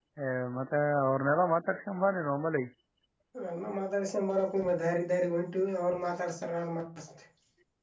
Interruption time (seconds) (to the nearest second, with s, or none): none